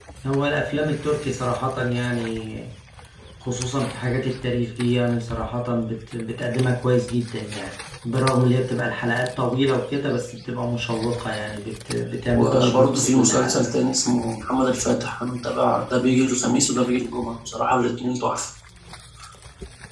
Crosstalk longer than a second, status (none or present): present